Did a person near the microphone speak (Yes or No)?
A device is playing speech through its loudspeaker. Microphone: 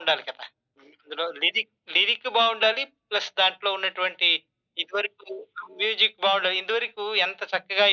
No